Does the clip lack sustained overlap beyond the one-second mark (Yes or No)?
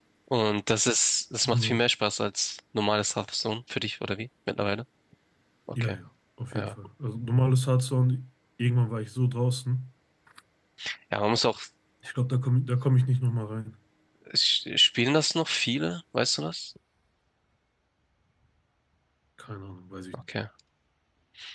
Yes